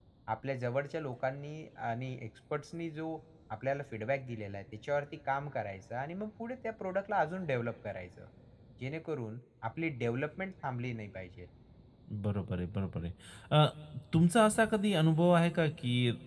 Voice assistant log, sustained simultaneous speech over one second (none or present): none